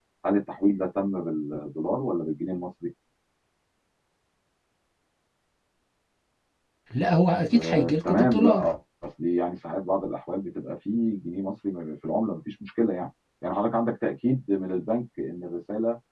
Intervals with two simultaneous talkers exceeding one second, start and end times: 7.5-8.7

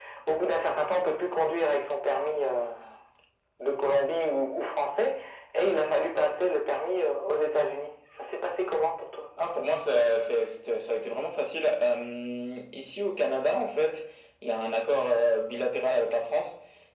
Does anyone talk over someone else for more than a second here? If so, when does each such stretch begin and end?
none

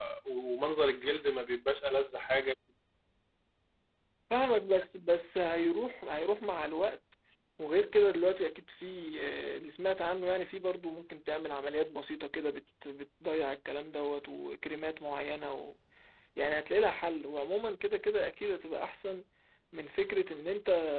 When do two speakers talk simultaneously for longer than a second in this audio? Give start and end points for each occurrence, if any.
none

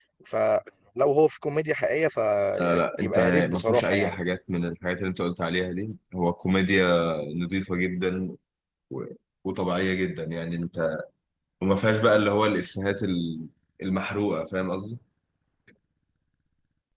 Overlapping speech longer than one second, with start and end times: 2.6-4.2

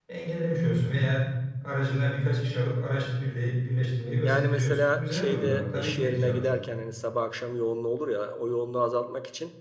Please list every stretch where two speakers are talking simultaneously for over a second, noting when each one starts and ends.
4.2-6.5

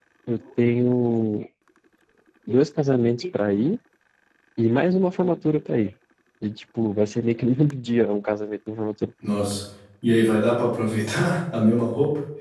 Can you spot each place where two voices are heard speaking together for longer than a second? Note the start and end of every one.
none

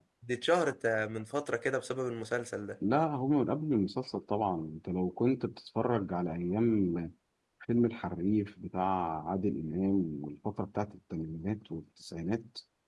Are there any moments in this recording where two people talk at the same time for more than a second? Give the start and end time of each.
none

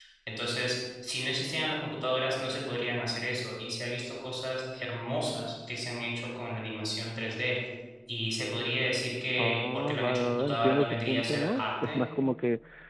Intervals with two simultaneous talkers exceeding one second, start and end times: 9.4-12.0

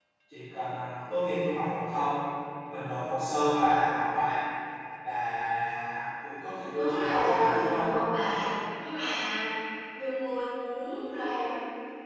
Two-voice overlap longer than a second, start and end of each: 6.7-8.0

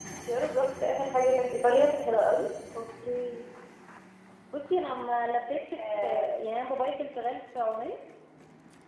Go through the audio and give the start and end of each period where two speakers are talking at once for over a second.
none

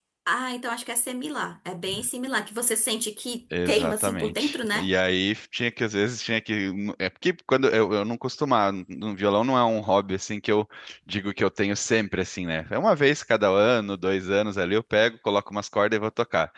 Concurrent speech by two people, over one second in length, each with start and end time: 3.6-4.9

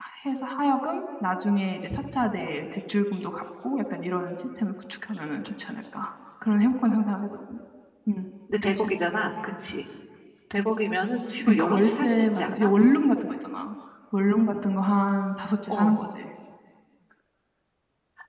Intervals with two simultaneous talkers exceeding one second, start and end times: 11.4-12.7

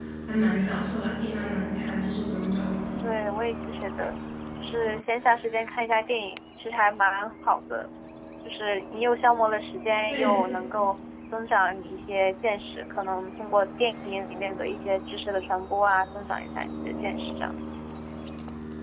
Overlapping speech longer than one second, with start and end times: none

